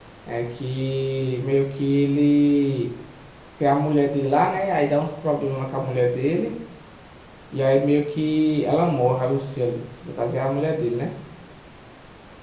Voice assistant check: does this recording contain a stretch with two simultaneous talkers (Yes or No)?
No